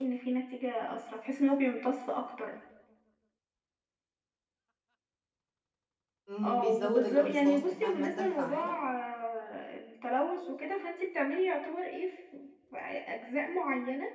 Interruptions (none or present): present